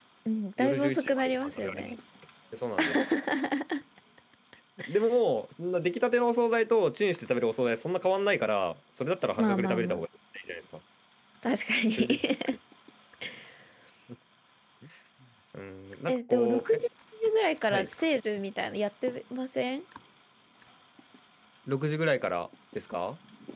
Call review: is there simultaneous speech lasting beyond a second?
Yes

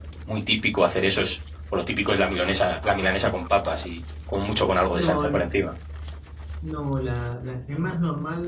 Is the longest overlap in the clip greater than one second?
No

